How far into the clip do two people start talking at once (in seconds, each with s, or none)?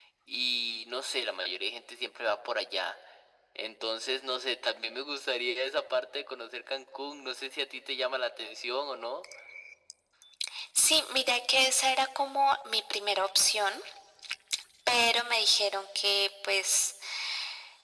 none